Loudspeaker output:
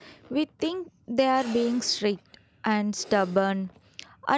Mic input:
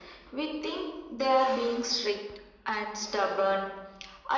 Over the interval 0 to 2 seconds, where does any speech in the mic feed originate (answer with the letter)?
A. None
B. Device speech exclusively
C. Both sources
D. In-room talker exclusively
B